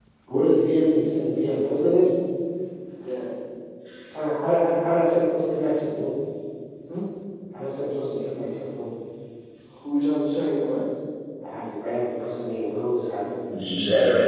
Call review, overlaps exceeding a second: none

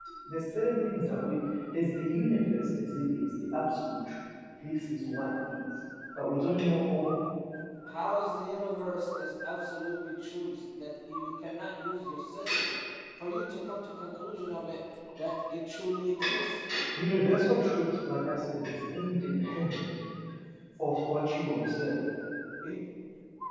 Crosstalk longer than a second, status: none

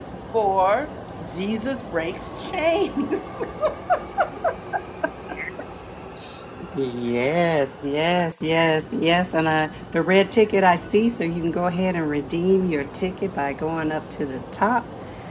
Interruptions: none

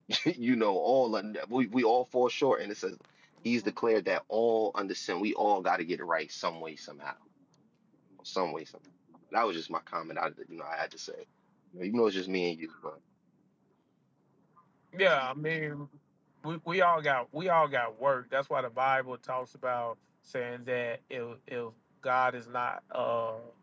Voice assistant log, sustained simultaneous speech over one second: none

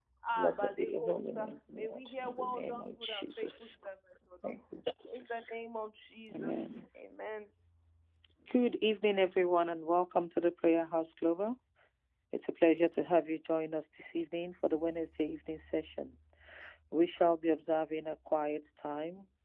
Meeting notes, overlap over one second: present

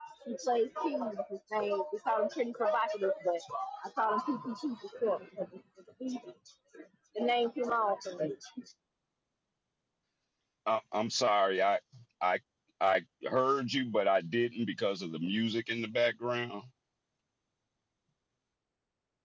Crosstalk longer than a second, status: none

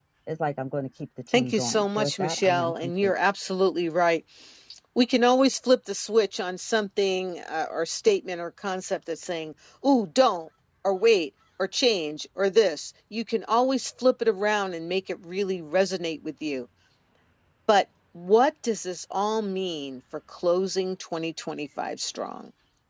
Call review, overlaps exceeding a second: present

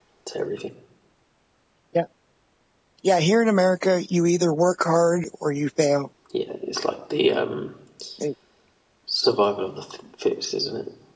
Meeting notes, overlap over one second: none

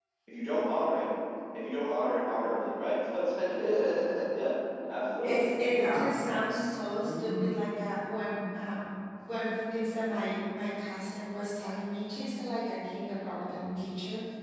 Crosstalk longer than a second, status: none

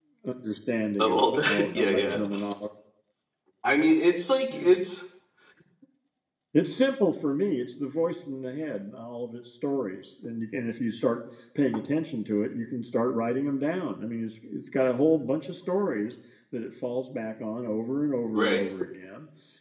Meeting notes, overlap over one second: present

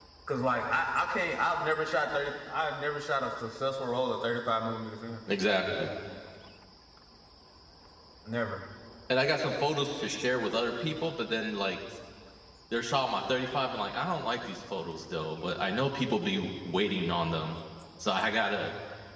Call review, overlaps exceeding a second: none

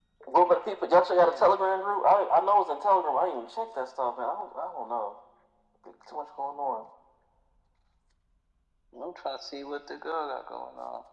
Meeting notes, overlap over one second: none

